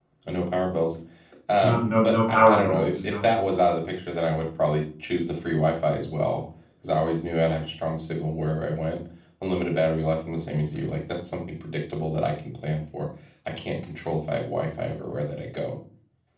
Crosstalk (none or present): present